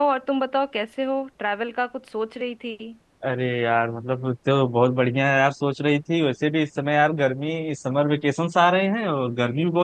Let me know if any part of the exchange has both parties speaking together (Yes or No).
No